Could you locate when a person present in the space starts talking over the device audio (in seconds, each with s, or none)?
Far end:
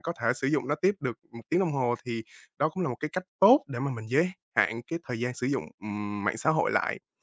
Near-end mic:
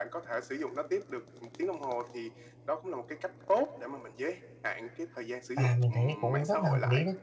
5.5 s